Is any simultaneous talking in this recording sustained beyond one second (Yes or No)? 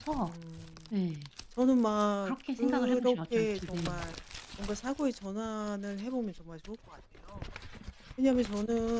Yes